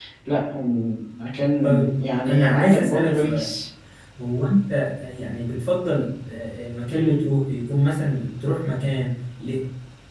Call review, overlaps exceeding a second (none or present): present